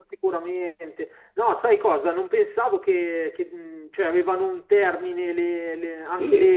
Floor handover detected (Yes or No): No